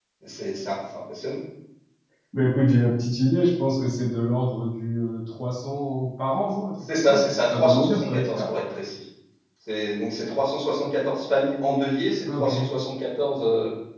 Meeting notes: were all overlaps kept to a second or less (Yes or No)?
No